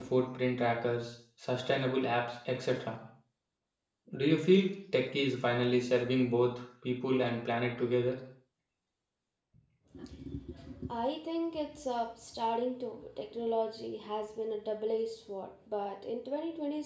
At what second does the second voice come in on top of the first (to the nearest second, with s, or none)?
none